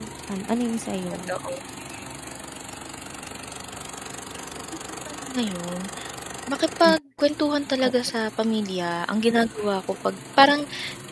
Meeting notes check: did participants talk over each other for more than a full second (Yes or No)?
No